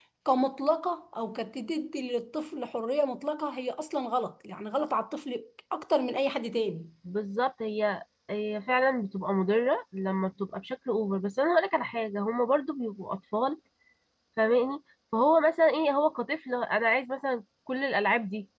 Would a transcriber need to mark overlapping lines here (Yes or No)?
No